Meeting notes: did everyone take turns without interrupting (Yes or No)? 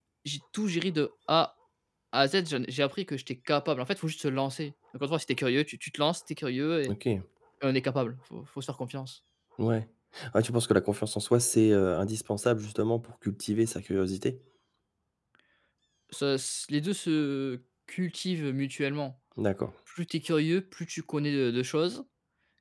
Yes